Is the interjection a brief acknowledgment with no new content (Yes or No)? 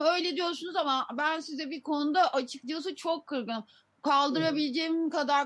Yes